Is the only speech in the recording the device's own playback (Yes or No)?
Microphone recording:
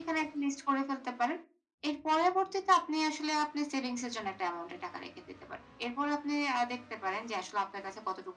Yes